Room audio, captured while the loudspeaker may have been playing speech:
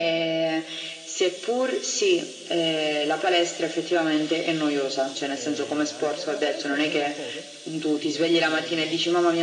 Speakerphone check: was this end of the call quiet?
No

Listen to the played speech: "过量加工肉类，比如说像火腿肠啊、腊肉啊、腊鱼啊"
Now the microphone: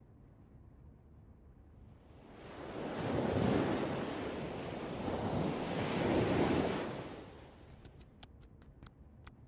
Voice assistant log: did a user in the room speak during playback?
No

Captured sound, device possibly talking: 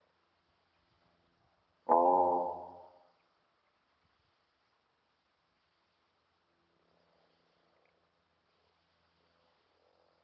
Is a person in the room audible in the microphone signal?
Yes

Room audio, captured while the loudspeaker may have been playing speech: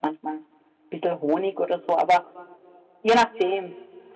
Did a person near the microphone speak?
Yes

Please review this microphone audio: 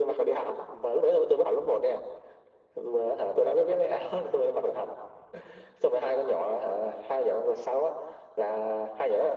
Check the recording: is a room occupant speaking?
No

